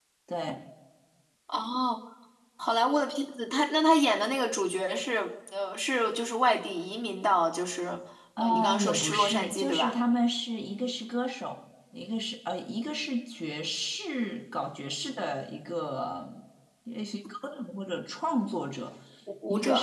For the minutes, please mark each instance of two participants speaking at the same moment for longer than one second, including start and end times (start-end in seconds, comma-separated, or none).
8.4-9.9